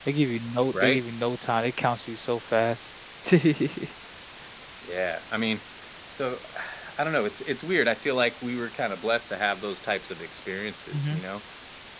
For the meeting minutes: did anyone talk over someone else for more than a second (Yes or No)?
No